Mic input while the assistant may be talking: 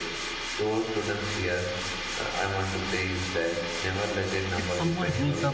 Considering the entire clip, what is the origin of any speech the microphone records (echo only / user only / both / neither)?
both